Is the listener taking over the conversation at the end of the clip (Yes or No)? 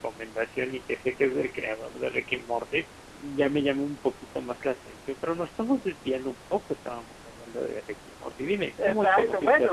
Yes